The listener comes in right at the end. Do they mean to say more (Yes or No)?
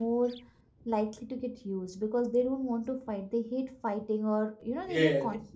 Yes